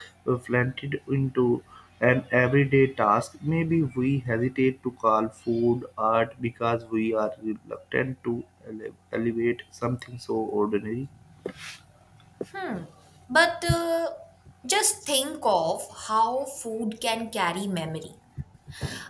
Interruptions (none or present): none